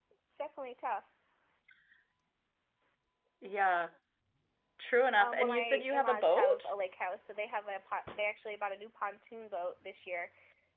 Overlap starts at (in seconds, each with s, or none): 5.2 s